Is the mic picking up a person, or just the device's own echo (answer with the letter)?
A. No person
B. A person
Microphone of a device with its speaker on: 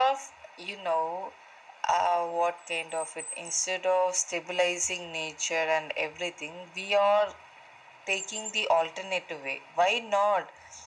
A